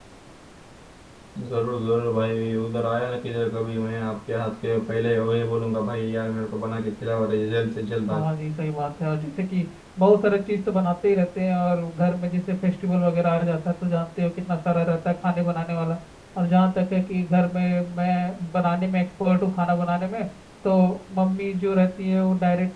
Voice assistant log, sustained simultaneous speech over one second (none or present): none